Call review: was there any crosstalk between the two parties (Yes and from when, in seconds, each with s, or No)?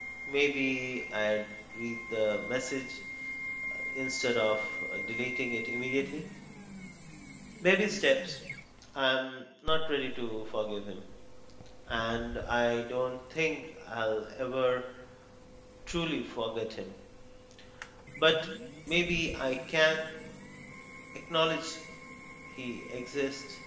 No